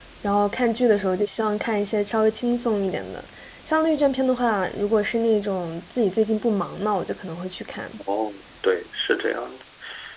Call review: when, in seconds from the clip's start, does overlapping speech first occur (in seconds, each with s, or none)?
none